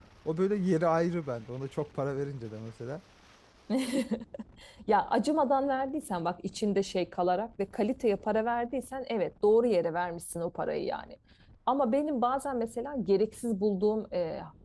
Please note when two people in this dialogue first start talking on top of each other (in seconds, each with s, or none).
none